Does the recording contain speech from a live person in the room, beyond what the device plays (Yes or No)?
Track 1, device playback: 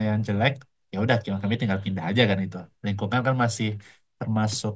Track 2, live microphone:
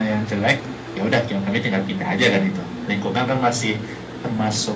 No